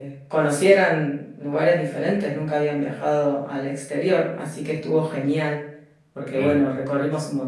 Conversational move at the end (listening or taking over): listening